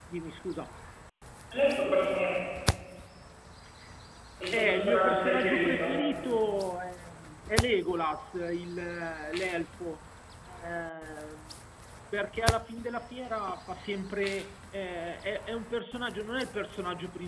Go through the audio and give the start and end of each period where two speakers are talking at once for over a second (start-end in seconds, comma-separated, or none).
4.5-6.0